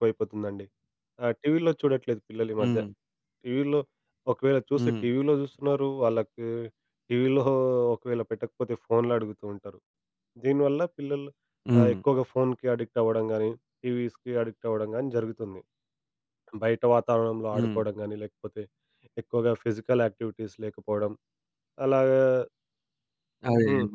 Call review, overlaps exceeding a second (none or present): none